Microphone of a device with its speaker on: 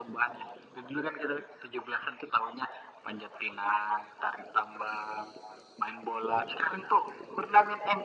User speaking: No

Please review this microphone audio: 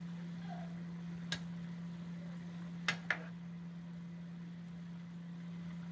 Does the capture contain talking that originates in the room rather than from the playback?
No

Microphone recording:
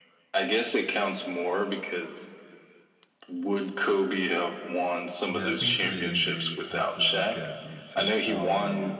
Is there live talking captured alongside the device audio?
Yes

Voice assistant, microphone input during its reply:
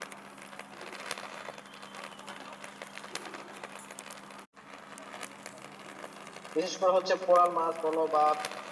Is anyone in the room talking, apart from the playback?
Yes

